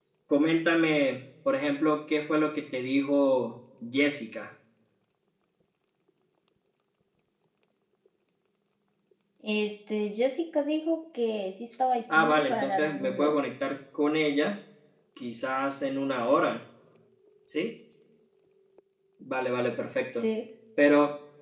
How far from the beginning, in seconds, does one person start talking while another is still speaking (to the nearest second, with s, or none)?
12 s